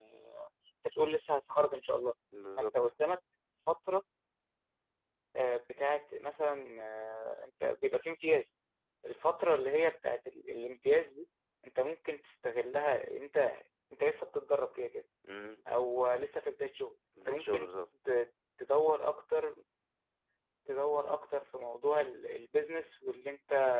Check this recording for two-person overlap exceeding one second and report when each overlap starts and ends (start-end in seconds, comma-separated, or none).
none